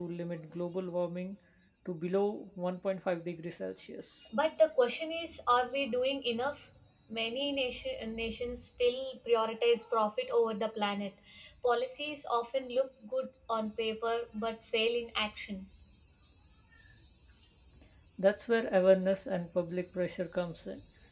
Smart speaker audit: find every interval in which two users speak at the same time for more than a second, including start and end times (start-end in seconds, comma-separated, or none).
none